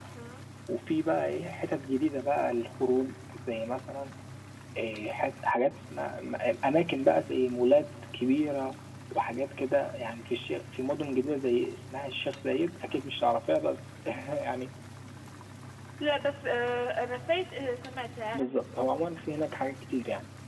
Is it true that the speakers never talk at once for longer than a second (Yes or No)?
Yes